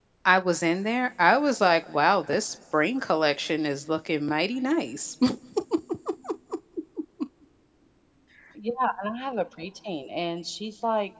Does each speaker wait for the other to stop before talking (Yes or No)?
Yes